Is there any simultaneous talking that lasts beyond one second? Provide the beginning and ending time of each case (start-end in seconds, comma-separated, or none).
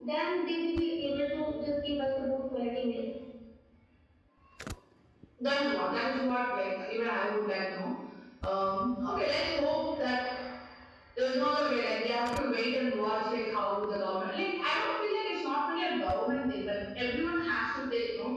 none